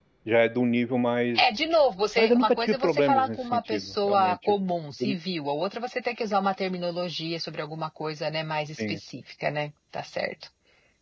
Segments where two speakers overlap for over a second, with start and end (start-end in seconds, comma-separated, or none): 2.2-4.5